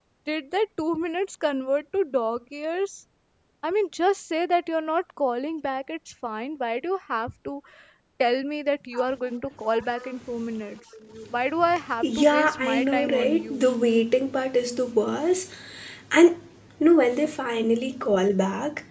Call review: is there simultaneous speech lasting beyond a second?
Yes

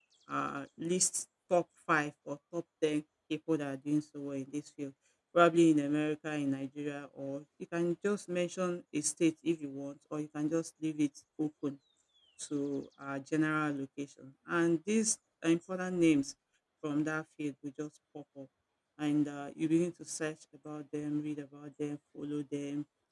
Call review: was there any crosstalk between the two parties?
No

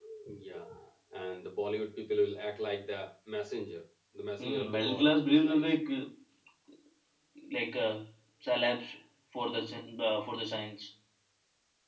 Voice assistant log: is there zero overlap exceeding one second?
No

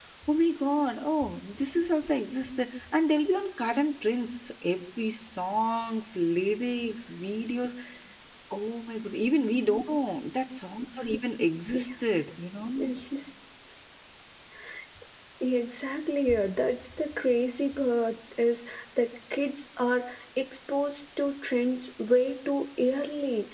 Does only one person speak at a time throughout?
Yes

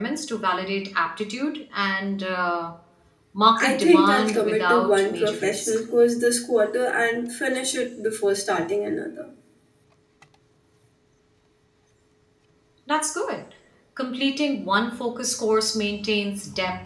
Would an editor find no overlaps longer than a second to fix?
No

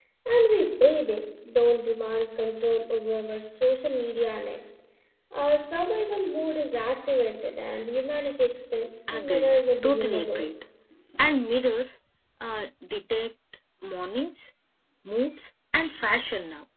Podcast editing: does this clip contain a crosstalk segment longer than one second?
Yes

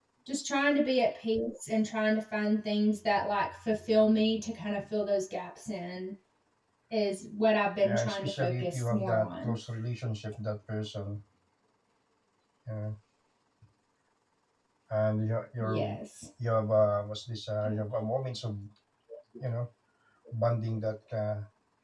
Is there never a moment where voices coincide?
No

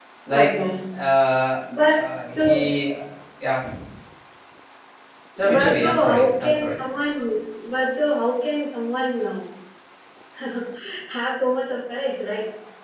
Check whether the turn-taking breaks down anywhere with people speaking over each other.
Yes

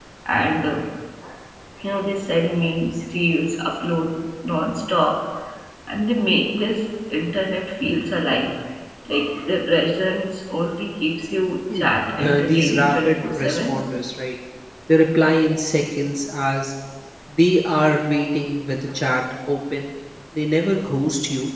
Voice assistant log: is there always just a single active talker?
No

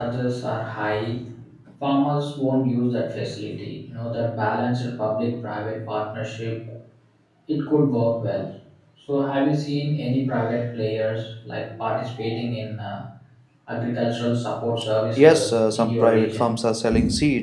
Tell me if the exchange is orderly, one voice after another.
No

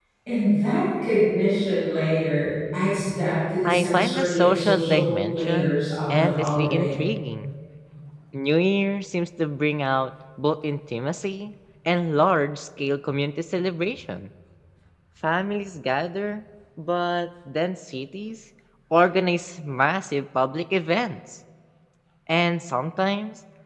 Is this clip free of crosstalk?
No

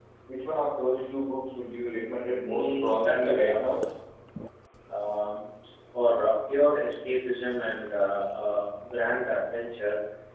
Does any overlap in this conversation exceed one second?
Yes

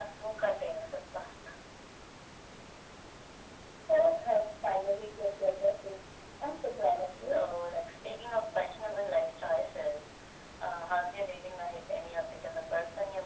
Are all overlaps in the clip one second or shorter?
Yes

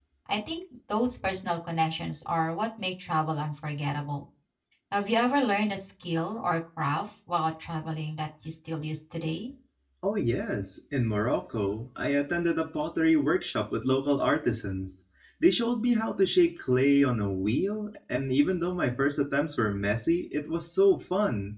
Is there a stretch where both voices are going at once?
No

